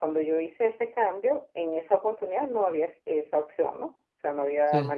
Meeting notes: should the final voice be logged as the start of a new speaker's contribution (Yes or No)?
No